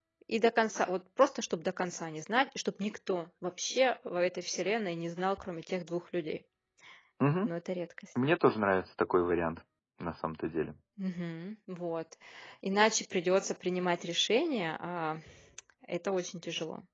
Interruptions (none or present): none